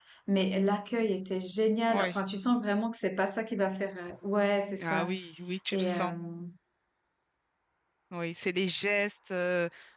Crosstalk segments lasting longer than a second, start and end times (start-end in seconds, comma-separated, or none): none